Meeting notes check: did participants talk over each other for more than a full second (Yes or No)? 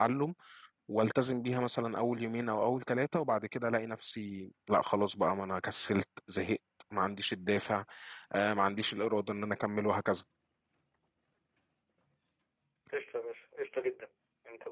No